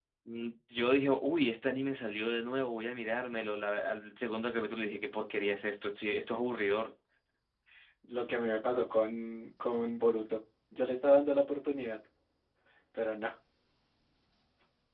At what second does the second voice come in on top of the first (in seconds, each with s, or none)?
none